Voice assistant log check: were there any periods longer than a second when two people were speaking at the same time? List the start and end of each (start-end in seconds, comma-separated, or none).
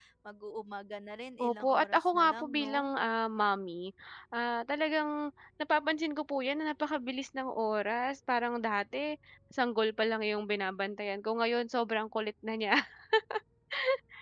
1.4-2.9